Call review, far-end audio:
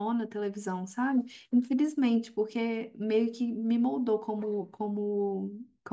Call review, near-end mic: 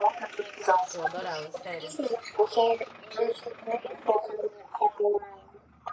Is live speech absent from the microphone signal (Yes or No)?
No